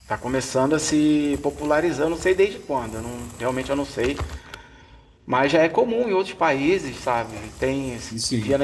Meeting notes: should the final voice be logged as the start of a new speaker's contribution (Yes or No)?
No